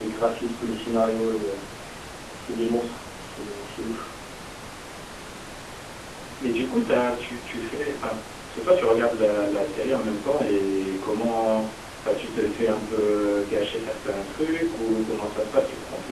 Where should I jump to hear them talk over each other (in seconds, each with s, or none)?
none